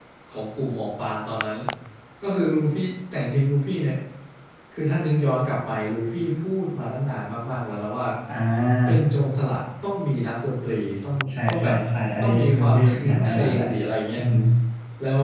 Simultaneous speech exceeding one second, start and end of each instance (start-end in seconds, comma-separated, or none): 12.2-13.6